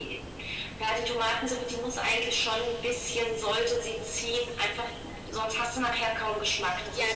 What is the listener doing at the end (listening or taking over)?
taking over